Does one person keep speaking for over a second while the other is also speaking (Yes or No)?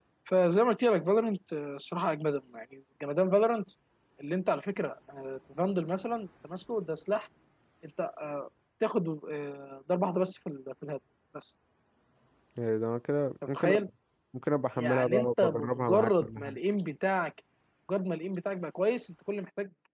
Yes